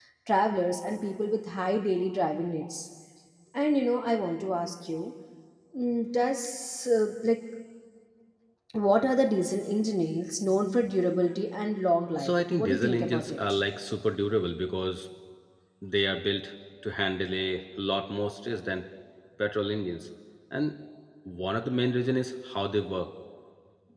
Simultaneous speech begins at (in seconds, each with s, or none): 12.2 s